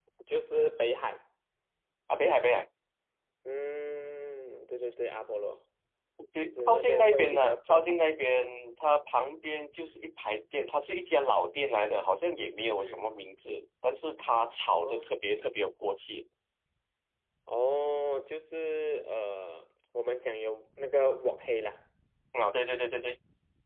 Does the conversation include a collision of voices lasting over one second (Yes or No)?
Yes